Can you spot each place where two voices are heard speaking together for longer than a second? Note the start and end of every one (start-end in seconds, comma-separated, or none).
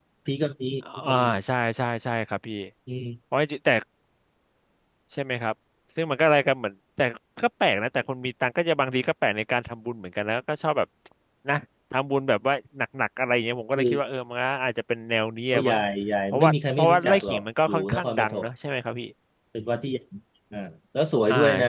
16.3-18.5